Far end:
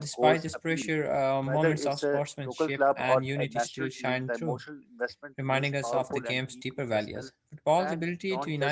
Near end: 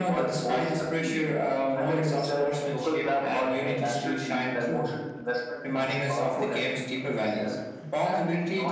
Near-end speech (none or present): none